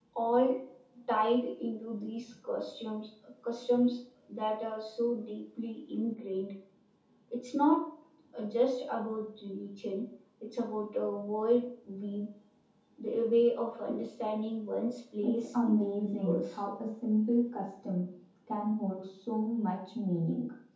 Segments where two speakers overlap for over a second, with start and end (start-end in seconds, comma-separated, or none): 15.2-16.6